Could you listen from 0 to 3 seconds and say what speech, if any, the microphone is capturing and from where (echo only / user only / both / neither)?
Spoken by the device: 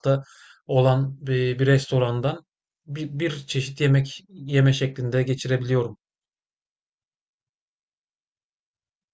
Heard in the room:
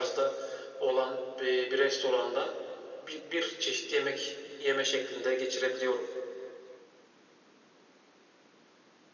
echo only